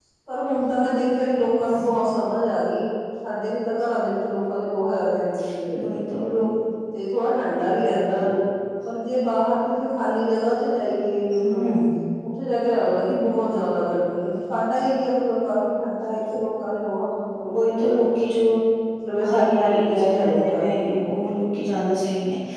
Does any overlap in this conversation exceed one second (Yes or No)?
Yes